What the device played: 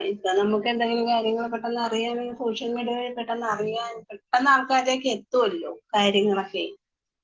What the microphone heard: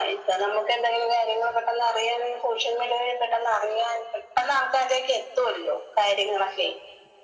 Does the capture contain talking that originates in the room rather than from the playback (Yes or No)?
No